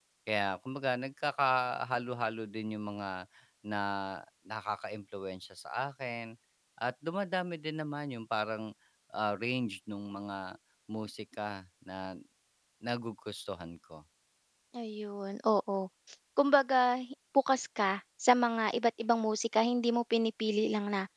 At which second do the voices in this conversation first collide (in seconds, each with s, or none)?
none